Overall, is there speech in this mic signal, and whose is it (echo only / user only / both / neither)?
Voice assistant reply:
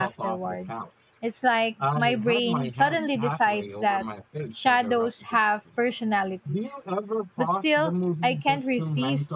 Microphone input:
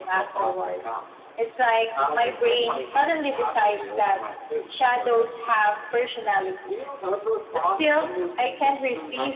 echo only